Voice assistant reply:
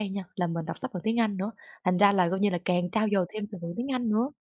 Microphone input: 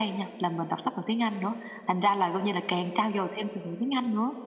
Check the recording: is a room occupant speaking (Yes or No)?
No